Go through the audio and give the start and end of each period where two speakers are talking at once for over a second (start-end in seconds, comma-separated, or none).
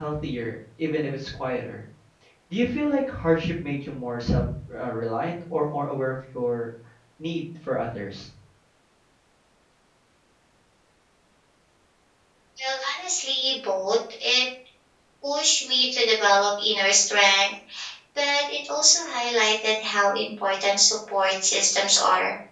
none